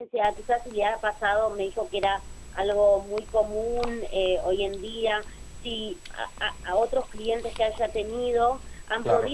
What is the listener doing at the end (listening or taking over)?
listening